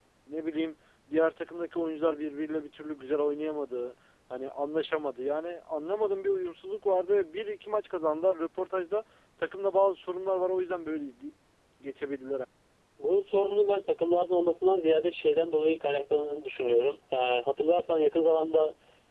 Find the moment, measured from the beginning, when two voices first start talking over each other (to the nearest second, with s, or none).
none